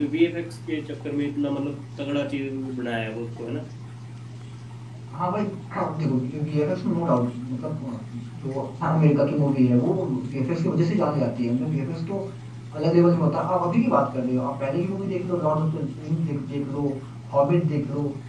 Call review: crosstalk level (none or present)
none